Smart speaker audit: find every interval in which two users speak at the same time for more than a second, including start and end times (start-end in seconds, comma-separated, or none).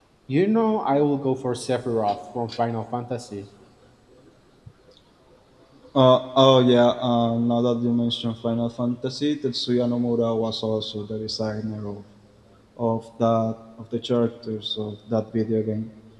none